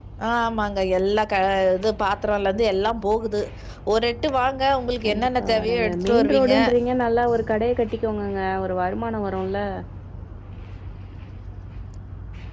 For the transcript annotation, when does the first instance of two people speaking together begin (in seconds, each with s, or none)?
5.0 s